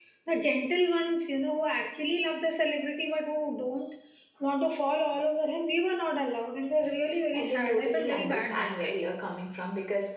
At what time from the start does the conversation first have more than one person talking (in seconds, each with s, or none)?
7.3 s